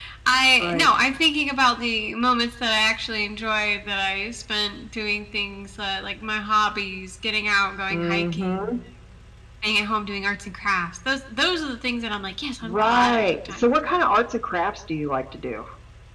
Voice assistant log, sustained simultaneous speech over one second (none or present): present